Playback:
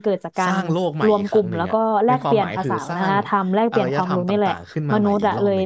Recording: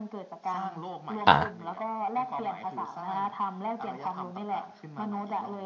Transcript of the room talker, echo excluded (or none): อ่า